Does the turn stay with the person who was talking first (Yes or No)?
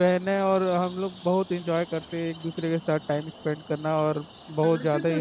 No